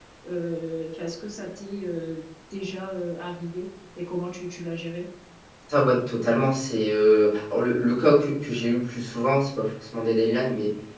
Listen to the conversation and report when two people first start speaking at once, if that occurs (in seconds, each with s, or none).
none